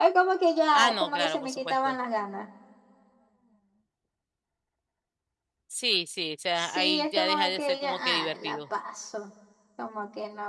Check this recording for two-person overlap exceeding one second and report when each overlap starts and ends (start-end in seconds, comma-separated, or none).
0.7-1.9, 6.6-8.6